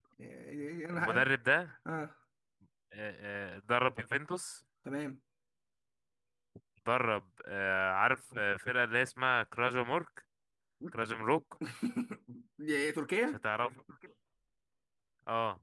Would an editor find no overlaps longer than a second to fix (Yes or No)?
Yes